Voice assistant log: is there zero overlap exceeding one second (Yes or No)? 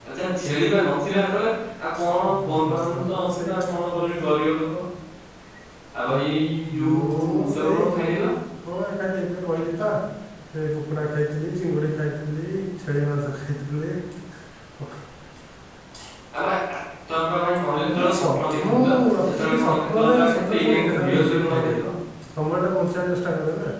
No